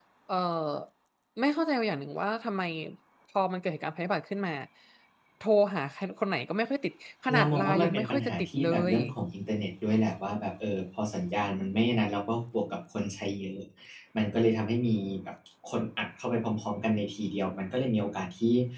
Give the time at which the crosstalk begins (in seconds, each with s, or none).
7.3 s